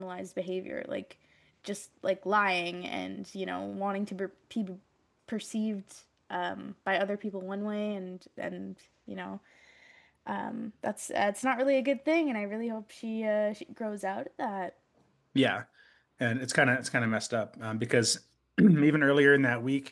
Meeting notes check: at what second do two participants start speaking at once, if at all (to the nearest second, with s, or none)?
none